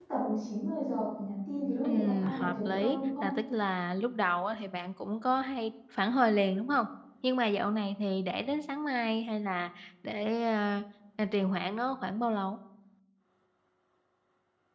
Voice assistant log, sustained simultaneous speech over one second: present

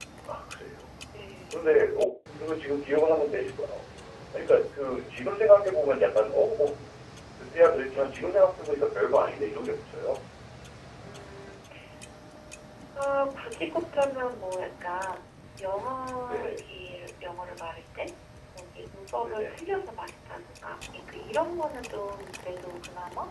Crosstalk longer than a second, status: none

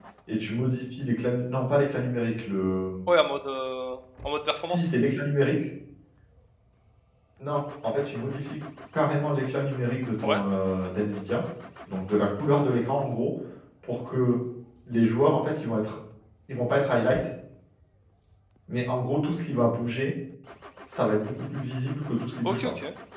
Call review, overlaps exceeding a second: none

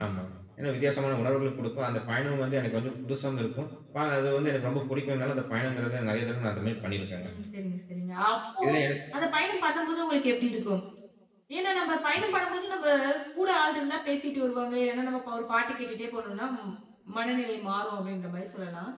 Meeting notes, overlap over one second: none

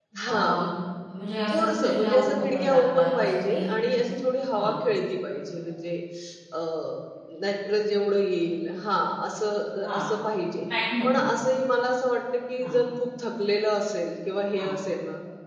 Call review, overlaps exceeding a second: present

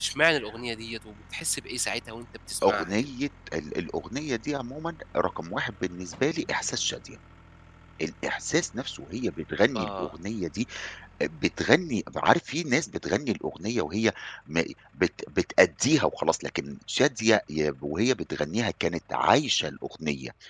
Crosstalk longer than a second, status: none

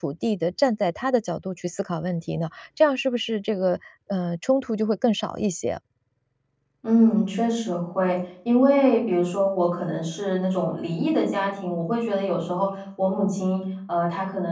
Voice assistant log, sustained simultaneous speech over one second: none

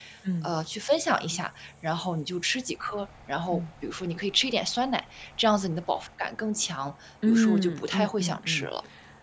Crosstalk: present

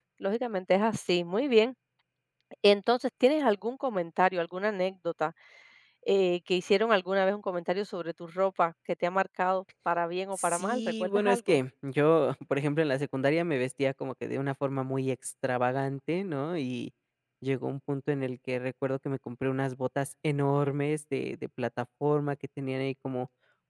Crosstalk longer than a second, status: present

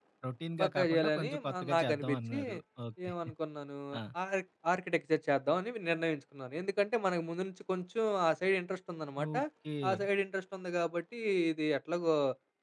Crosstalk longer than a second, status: present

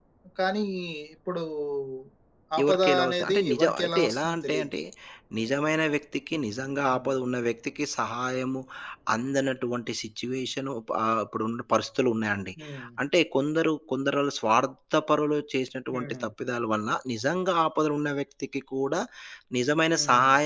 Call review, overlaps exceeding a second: present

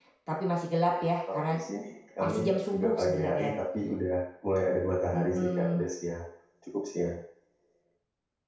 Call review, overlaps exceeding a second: present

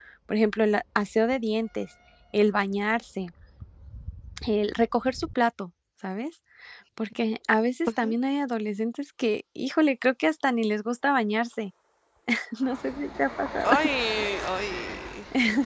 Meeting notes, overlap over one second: none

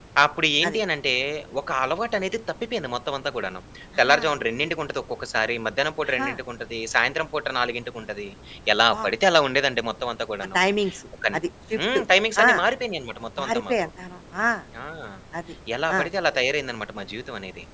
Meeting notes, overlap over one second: none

